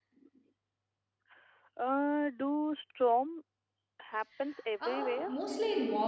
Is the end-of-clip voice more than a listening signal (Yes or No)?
Yes